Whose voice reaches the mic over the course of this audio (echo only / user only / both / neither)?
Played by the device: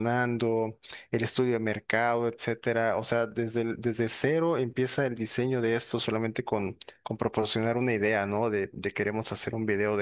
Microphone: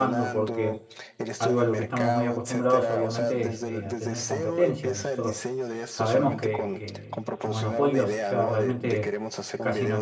both